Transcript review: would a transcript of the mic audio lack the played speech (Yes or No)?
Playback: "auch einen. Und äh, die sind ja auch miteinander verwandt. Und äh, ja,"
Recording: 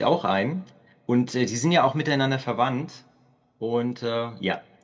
No